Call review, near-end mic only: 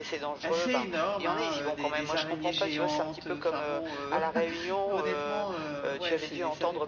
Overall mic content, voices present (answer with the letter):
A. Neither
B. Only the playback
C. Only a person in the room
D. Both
D